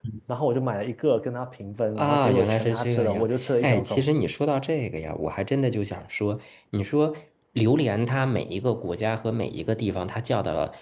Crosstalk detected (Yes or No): Yes